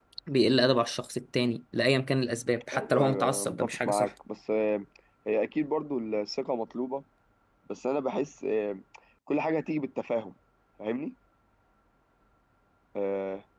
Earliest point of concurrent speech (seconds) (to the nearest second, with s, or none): 3 s